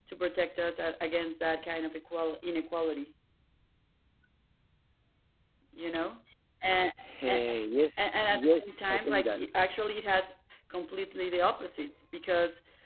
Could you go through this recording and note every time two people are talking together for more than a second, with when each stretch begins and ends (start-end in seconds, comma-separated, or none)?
8.0-9.4